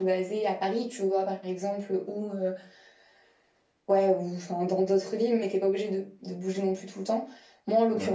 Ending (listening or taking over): listening